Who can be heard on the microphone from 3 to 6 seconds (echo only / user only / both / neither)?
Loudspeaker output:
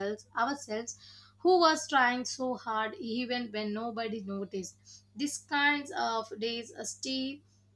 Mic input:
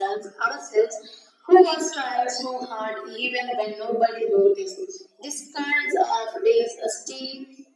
echo only